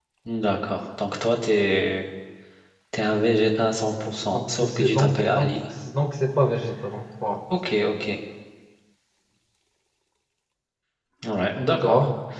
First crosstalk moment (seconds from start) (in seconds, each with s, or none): 4.2 s